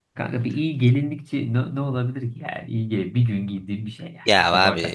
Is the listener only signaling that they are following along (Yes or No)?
No